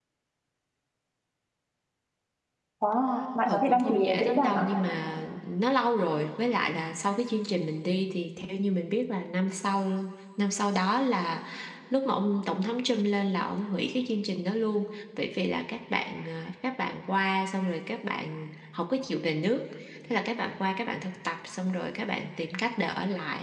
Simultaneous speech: Yes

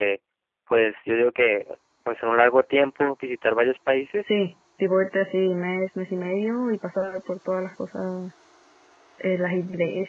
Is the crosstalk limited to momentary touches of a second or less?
Yes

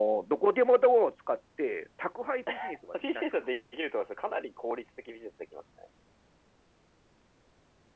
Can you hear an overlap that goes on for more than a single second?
No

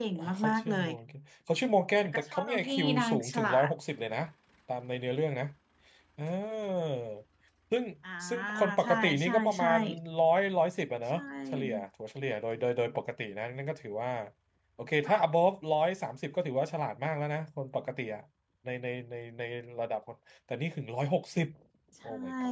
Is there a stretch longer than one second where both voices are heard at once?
Yes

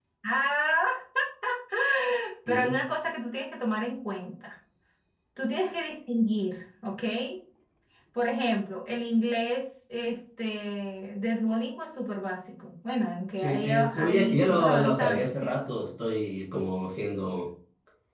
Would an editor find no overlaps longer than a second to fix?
No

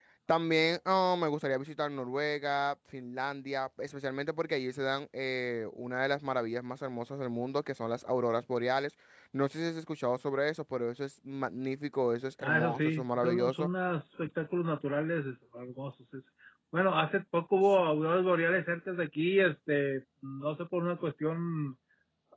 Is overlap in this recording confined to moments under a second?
No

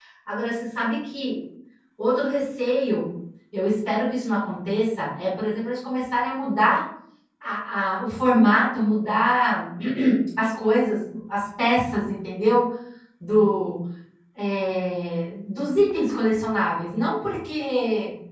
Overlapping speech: No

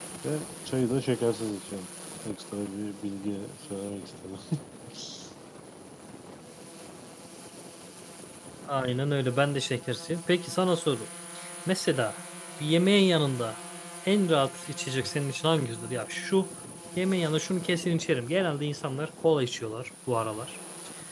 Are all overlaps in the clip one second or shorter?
Yes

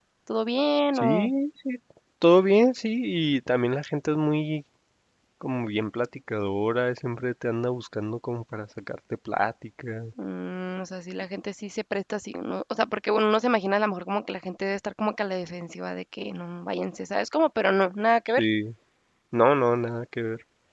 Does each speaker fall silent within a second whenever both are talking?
Yes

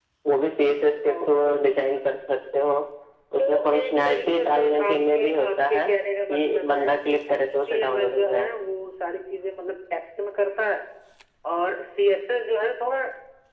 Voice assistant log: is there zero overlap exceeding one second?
No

